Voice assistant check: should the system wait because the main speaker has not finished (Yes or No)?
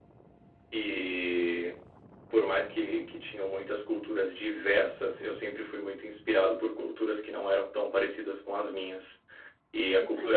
Yes